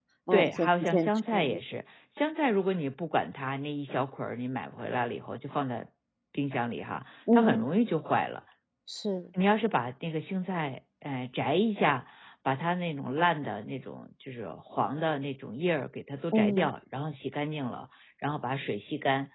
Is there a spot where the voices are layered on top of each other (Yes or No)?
Yes